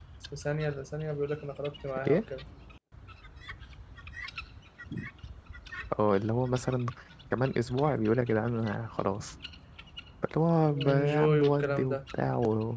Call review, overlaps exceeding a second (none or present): present